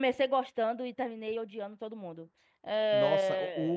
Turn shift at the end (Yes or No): Yes